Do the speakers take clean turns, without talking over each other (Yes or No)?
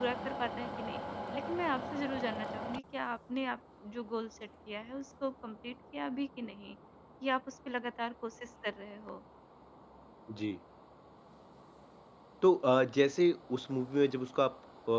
Yes